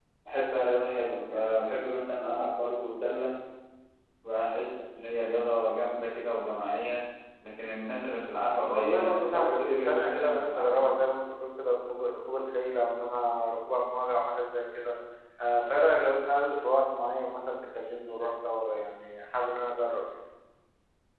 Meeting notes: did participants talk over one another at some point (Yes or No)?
Yes